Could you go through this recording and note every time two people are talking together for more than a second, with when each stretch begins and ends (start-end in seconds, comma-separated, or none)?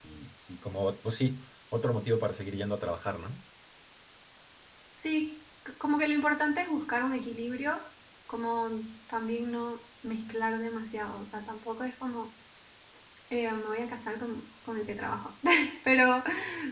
none